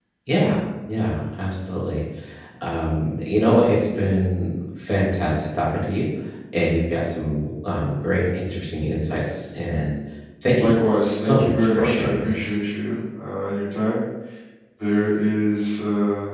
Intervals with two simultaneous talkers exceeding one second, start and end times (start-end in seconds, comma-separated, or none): 10.6-12.3